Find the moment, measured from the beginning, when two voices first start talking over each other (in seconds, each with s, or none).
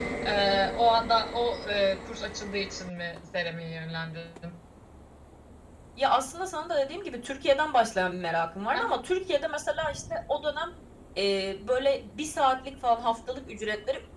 none